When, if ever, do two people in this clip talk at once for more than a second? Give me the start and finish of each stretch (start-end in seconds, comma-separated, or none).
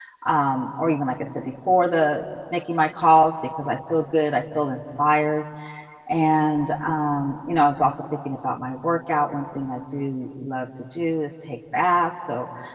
none